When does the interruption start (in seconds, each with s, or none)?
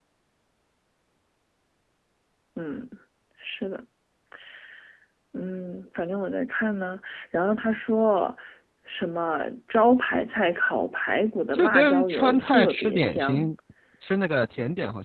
11.5 s